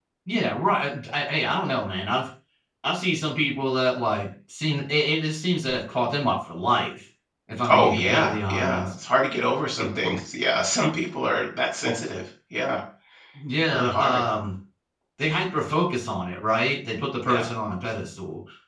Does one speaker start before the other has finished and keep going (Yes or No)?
Yes